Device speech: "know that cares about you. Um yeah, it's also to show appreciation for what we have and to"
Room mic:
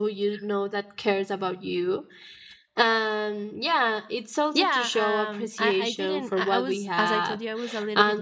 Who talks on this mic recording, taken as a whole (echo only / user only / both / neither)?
both